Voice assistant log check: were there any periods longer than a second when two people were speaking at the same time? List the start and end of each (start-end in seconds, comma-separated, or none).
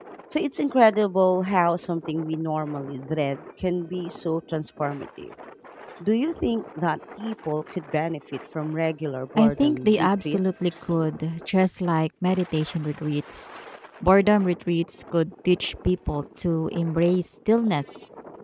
9.4-10.7